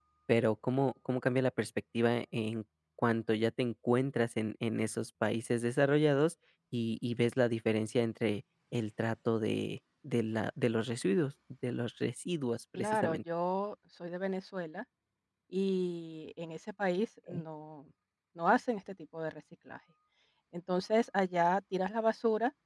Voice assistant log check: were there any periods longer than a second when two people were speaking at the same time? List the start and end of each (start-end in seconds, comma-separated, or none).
none